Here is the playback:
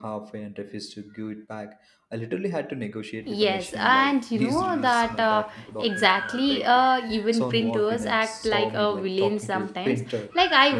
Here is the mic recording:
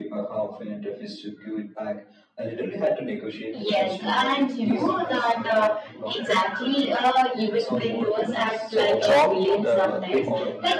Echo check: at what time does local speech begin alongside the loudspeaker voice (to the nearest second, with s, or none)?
9 s